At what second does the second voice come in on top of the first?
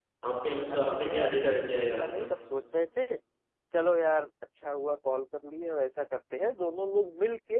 0.7 s

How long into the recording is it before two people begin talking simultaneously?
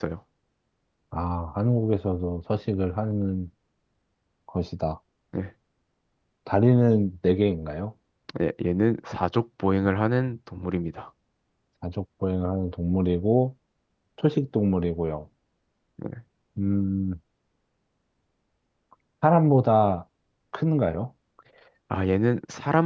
none

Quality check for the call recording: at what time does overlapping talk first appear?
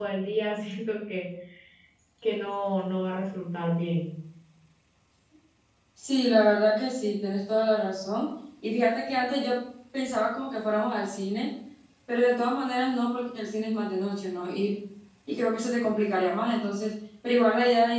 none

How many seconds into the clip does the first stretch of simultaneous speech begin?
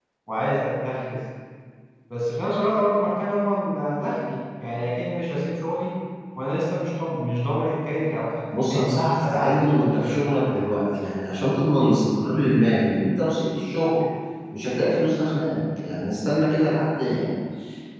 8.5 s

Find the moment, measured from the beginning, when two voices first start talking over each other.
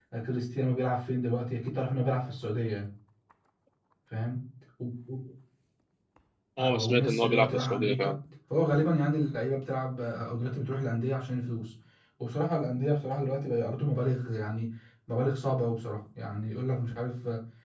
6.6 s

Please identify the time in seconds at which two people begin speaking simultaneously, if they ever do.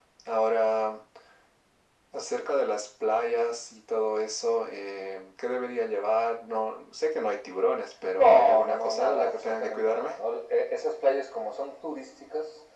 8.2 s

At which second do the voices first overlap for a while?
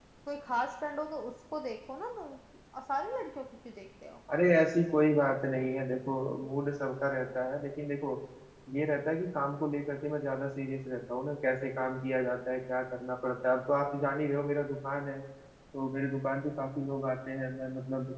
none

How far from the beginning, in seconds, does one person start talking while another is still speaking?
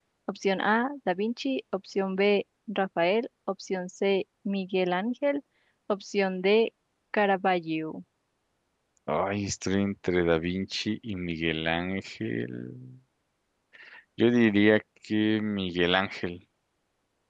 none

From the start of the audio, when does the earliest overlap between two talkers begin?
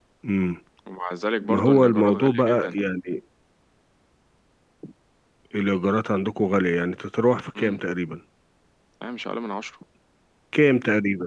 1.5 s

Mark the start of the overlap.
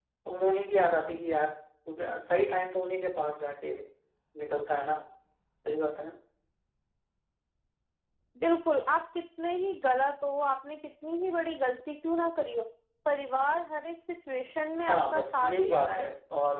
14.9 s

